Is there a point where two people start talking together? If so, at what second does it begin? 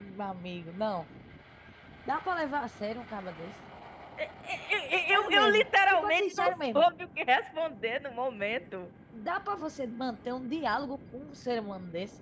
5 s

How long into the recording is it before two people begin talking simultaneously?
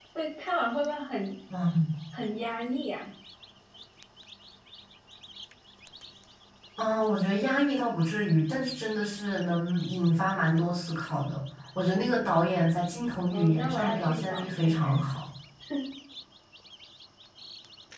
13 s

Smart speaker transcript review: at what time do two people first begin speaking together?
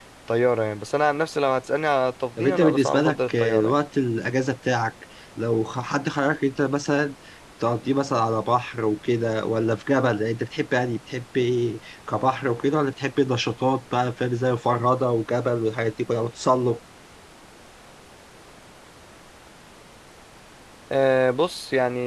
2 s

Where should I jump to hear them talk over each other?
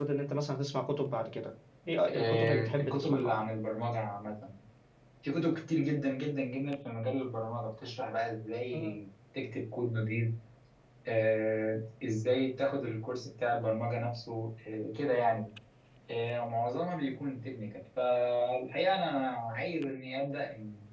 2 s

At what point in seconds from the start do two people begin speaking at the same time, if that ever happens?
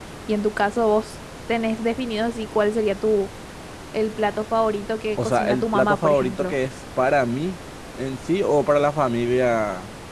5 s

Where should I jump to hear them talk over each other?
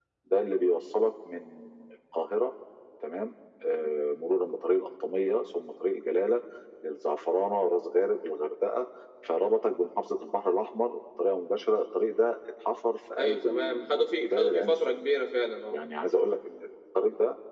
13 s

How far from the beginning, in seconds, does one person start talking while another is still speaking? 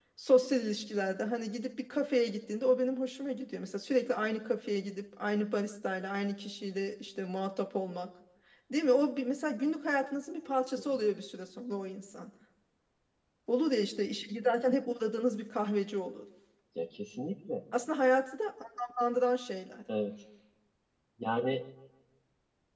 none

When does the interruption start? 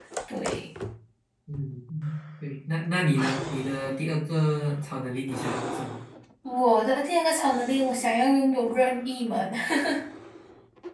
none

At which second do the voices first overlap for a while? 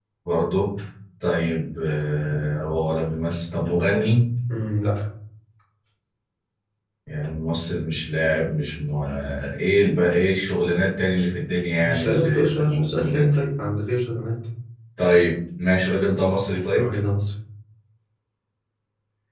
12 s

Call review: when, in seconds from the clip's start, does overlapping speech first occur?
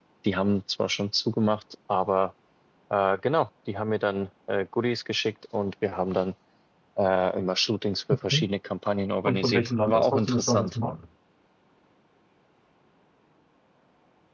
9 s

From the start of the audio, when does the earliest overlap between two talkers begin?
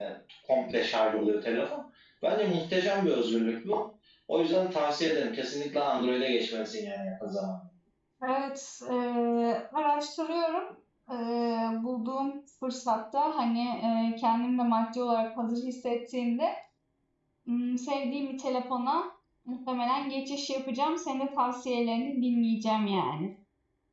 none

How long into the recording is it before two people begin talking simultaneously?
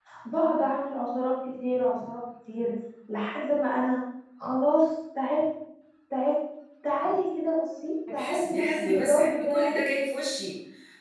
8 s

